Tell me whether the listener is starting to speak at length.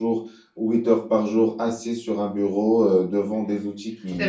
No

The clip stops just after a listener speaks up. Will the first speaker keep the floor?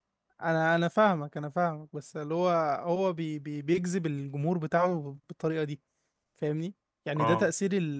Yes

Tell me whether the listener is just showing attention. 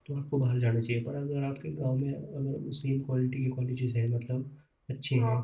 Yes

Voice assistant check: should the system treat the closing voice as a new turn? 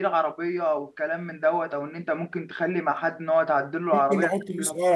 Yes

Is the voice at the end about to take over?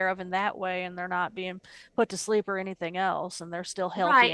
Yes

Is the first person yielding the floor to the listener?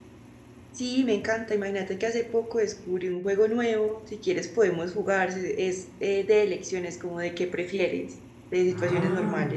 Yes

